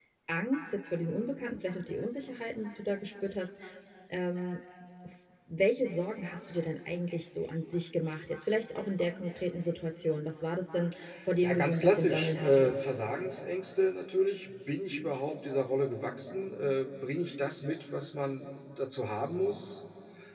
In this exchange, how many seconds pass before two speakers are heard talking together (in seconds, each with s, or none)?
11.4 s